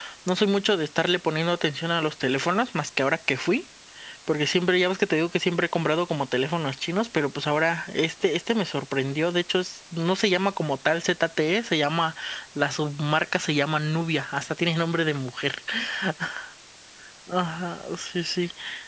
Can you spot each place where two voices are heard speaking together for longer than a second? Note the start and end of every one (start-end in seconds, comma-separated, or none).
none